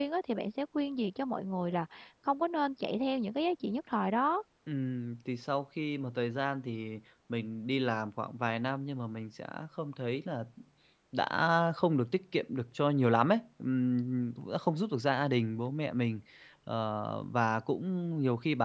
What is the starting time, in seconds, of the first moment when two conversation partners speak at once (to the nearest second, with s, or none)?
none